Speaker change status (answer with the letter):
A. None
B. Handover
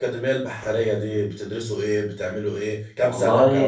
B